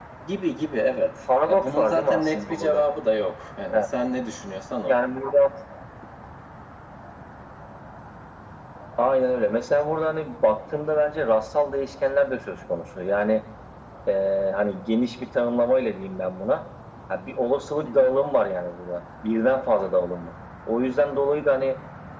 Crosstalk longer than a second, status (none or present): present